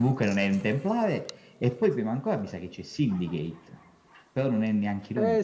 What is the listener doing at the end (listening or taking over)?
taking over